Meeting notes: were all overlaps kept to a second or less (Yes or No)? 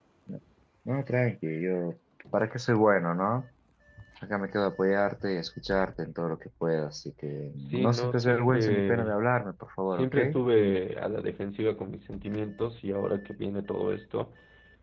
No